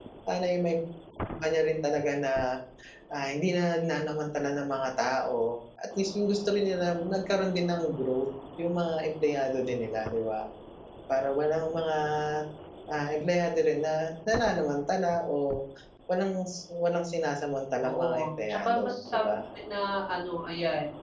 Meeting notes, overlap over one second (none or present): present